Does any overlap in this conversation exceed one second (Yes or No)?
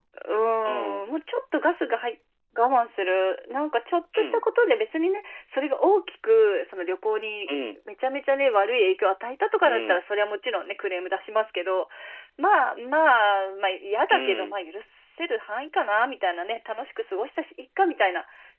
No